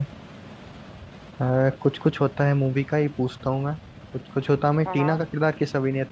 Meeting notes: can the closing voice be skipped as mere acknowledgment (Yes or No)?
Yes